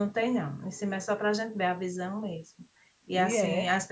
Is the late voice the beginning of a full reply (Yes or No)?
No